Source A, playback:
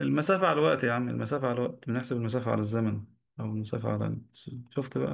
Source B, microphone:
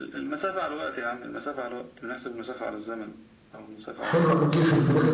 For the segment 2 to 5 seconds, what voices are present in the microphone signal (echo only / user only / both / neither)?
both